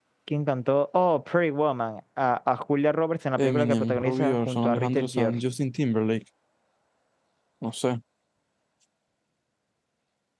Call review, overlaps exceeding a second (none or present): present